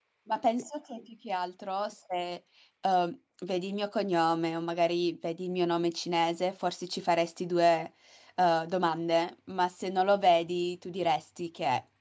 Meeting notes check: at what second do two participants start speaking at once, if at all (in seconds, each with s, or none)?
none